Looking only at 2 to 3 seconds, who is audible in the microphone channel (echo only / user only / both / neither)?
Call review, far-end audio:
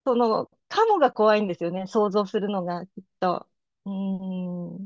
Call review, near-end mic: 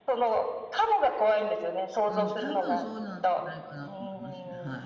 both